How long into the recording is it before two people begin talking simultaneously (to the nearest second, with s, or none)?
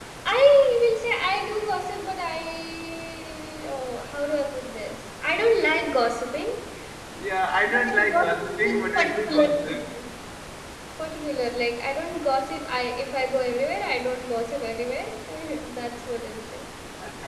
8 s